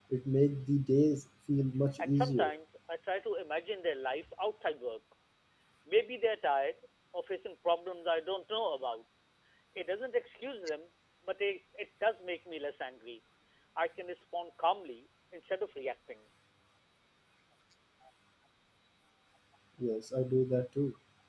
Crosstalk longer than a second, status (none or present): none